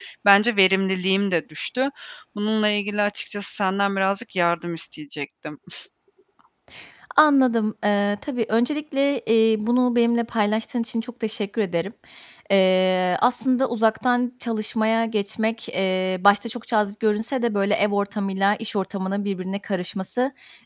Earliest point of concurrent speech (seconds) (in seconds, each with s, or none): none